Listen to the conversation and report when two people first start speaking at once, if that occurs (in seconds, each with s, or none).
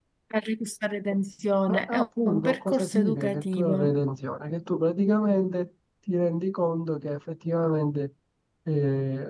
1.7 s